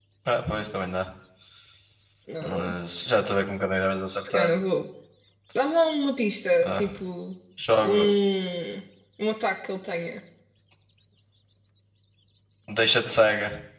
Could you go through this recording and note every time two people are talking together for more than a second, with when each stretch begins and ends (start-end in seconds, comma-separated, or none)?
none